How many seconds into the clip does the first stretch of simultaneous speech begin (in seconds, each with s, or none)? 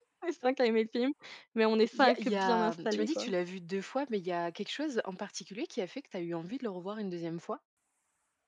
2.0 s